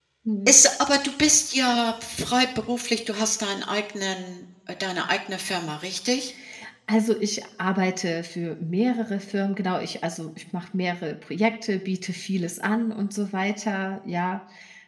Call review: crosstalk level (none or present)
none